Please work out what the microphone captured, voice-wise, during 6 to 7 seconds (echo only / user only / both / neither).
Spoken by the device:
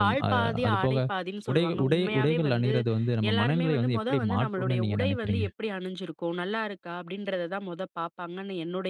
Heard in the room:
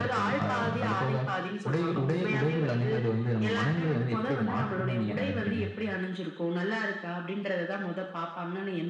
echo only